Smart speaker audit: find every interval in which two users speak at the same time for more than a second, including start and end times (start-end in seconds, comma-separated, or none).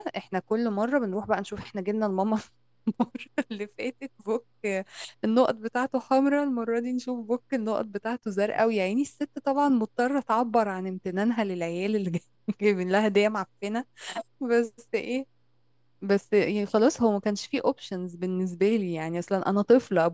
none